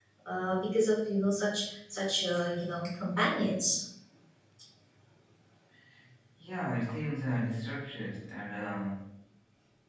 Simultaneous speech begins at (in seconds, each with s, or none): none